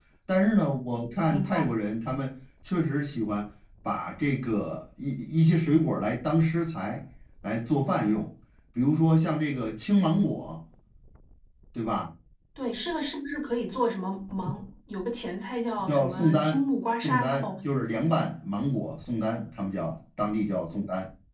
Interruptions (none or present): present